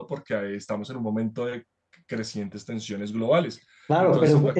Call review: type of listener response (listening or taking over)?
taking over